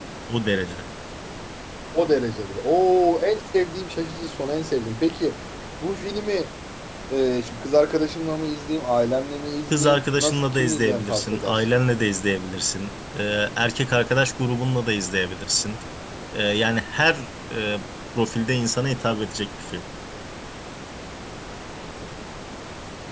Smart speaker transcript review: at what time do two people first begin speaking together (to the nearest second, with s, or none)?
10 s